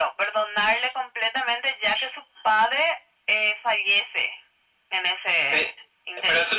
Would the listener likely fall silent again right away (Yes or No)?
No